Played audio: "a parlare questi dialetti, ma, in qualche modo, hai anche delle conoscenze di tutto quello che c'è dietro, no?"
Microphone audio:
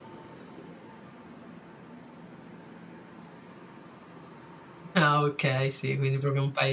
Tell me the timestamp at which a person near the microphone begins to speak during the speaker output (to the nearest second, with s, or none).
5 s